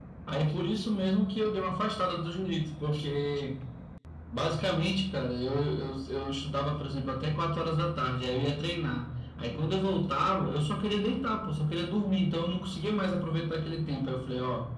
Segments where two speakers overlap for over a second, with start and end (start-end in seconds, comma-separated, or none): none